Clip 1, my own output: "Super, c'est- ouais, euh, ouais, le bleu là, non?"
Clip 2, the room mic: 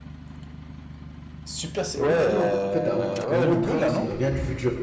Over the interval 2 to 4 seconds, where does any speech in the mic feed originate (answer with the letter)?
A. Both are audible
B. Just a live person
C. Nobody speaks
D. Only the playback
A